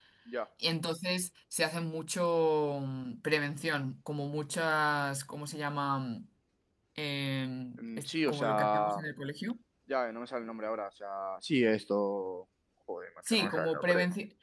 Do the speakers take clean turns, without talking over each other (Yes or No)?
No